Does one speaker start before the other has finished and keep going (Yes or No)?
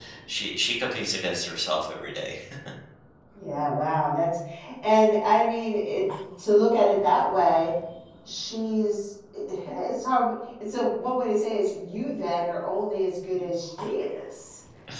No